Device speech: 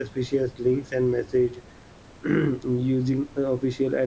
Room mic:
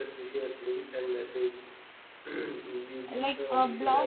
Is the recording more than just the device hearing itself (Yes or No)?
Yes